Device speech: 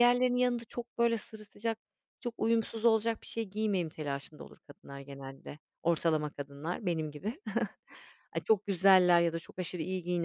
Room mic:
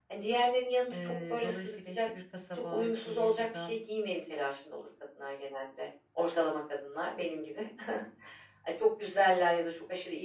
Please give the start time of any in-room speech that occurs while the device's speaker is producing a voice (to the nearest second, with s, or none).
1 s